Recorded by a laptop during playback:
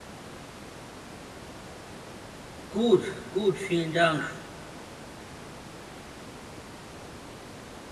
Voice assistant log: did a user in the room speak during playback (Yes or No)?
Yes